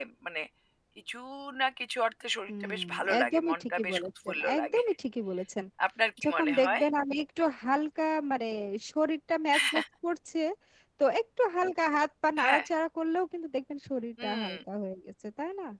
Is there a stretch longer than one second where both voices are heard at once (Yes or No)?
Yes